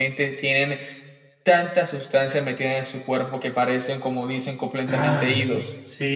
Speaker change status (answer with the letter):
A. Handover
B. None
A